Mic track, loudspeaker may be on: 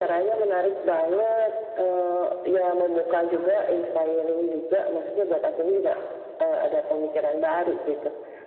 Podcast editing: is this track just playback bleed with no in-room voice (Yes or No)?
Yes